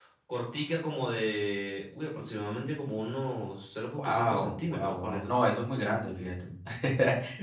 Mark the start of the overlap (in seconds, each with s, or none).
4.0 s